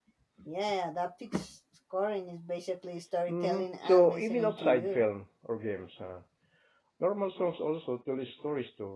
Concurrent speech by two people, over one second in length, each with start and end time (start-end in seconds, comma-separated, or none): 3.3-5.0